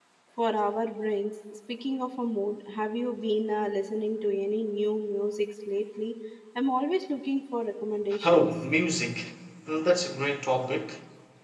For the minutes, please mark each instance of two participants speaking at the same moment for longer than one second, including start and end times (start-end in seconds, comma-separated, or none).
none